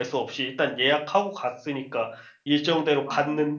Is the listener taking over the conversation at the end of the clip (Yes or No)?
No